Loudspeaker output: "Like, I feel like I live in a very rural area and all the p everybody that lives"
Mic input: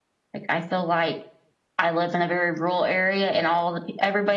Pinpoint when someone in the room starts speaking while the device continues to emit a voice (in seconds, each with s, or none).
none